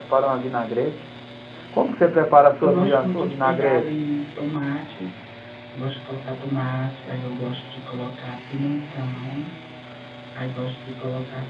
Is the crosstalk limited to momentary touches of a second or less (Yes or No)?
No